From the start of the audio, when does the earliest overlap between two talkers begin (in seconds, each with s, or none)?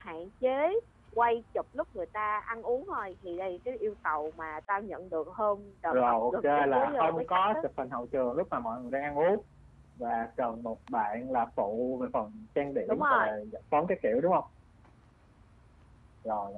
5.9 s